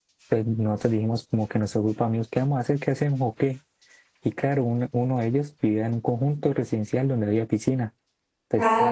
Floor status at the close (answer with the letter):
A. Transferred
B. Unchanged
B